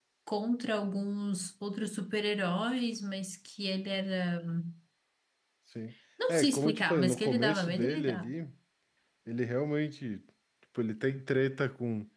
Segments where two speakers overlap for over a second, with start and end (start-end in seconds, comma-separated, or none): 6.3-8.3